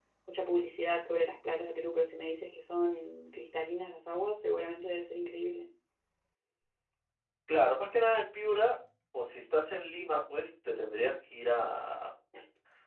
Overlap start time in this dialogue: none

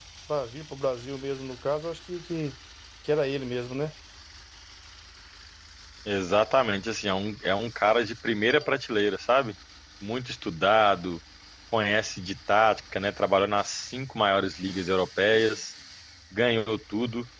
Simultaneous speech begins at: none

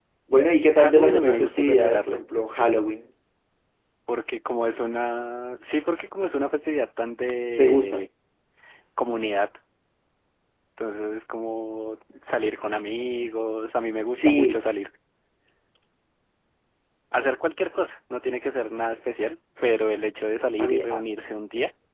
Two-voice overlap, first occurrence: 0.8 s

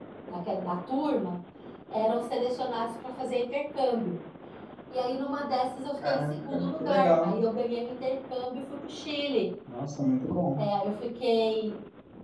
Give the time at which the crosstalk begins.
6.0 s

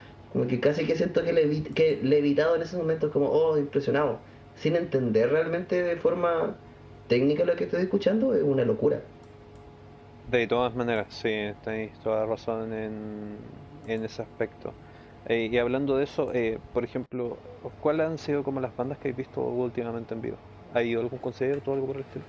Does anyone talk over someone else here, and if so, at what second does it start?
none

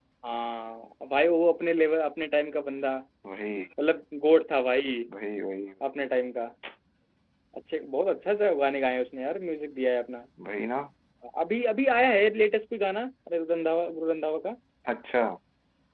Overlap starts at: none

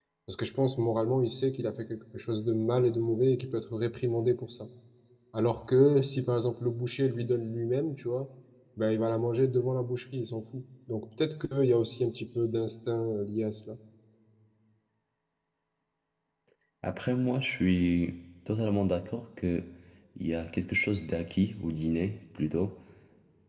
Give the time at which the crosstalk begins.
none

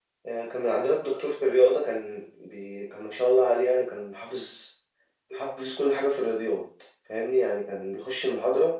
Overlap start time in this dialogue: none

